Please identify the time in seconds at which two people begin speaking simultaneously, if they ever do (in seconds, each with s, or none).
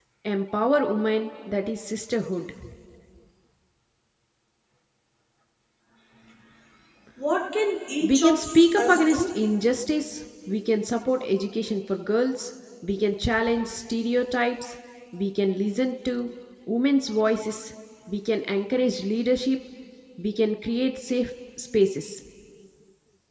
8.0 s